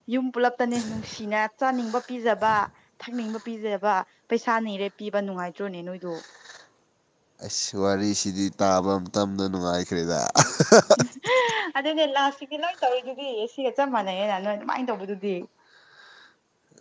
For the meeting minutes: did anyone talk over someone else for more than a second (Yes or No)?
No